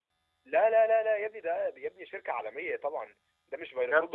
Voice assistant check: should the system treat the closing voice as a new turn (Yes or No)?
No